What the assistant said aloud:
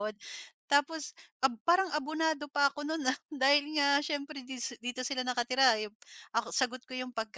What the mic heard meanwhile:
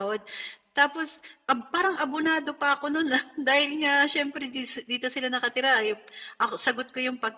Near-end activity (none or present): none